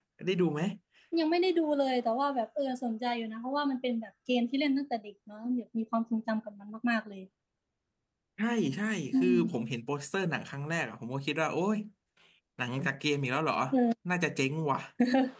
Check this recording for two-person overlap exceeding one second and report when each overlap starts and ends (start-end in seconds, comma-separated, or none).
none